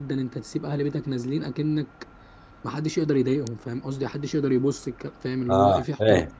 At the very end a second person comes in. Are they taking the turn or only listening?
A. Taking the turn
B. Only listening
A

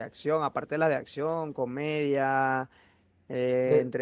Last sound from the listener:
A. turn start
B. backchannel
B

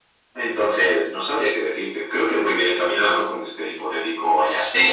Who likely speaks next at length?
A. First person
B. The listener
B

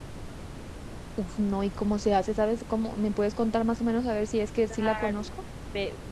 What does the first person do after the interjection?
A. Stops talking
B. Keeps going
A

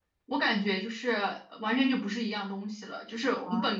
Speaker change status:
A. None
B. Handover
A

